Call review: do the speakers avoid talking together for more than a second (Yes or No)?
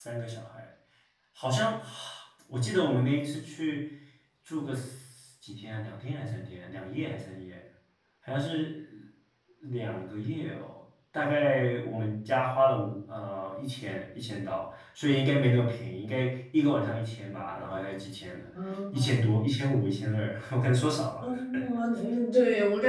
Yes